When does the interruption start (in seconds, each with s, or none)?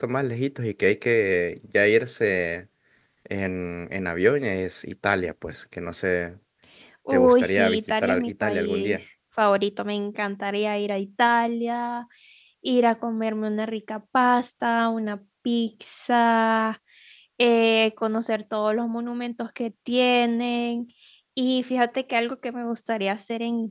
7.1 s